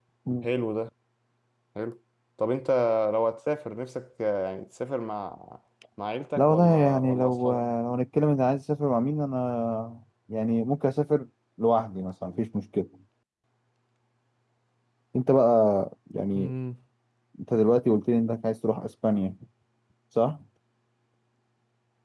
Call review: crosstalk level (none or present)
present